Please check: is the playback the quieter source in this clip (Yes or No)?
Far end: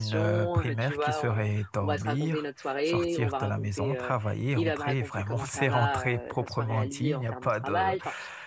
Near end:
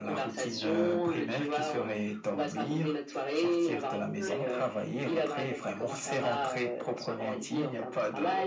No